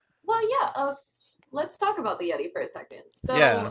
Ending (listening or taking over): taking over